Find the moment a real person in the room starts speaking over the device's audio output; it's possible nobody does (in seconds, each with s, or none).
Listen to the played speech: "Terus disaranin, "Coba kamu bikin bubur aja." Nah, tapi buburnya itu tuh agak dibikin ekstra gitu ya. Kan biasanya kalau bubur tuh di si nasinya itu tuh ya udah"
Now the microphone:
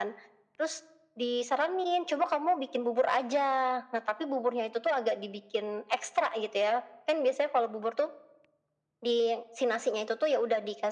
none